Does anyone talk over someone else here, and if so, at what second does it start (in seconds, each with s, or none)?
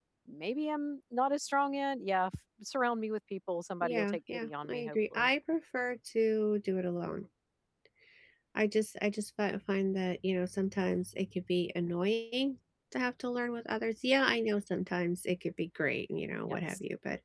3.8 s